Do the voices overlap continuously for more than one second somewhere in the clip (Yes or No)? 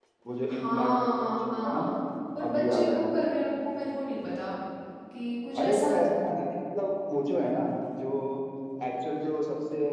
Yes